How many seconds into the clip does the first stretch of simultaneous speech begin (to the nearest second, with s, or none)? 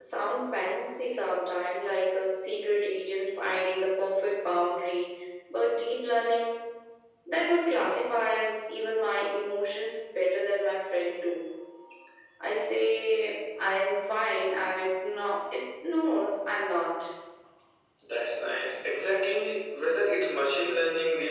none